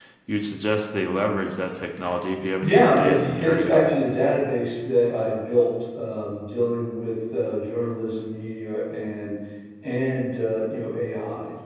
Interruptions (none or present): present